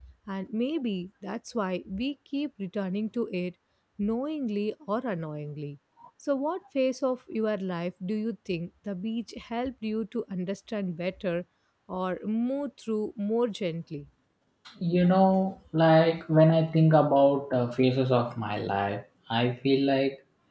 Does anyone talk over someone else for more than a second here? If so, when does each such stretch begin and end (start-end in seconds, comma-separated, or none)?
none